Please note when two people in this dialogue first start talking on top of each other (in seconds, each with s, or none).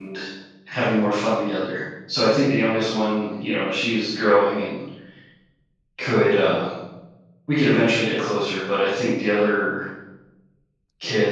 none